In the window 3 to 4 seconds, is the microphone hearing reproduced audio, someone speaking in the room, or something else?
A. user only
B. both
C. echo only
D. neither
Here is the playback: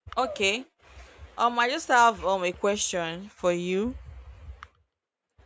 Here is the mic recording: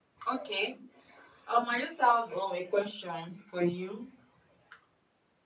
C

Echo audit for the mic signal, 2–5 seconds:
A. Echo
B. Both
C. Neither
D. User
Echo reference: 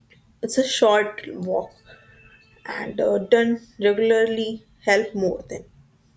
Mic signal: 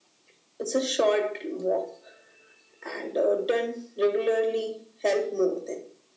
A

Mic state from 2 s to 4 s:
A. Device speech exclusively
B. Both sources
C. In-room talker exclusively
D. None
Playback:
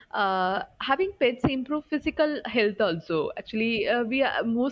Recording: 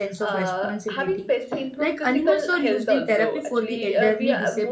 B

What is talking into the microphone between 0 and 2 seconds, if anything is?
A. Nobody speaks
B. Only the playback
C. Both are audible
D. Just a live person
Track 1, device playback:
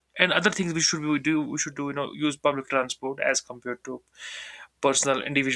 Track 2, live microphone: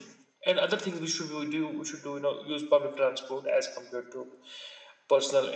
B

